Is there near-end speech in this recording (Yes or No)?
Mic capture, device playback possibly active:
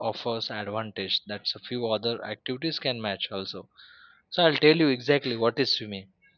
Yes